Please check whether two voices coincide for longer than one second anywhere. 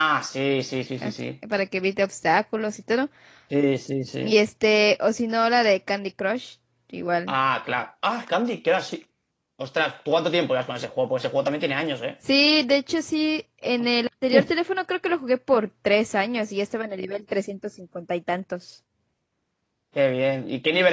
No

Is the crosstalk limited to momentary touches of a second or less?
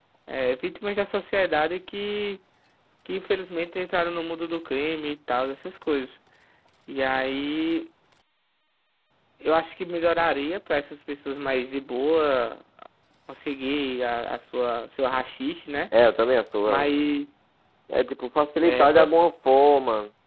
Yes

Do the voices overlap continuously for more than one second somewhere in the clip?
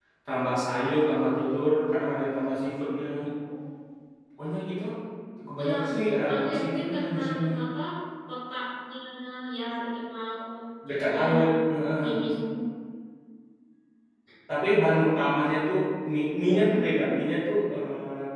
Yes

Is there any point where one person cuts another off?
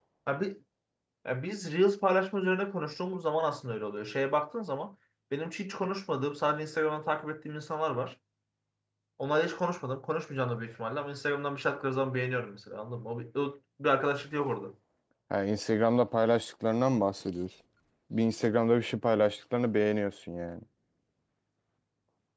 No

